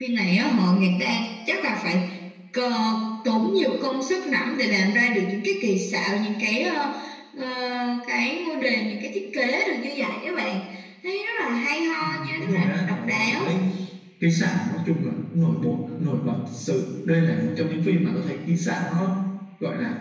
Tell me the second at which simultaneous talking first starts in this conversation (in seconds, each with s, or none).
12.0 s